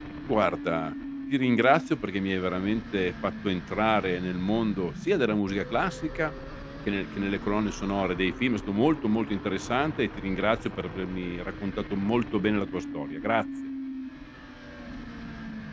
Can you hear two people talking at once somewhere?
No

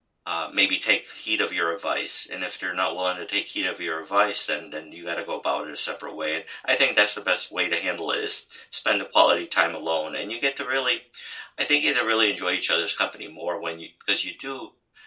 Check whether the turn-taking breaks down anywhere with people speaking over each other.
No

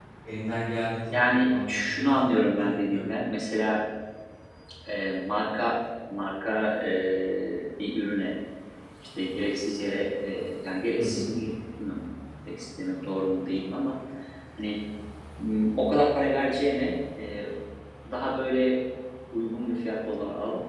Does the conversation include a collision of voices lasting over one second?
Yes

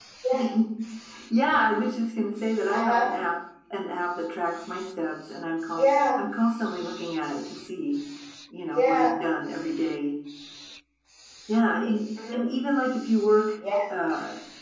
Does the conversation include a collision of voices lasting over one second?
No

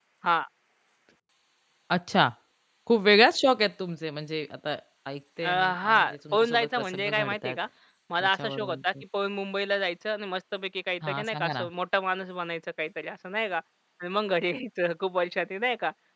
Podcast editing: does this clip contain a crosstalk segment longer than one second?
Yes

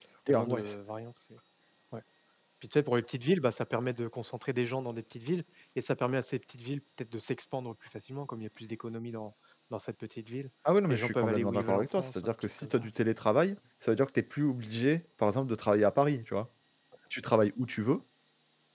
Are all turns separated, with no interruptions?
No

